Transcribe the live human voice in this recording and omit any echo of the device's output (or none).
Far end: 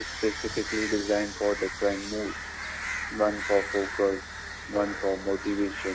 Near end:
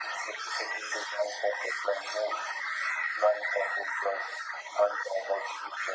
none